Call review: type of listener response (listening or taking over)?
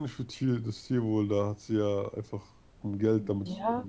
taking over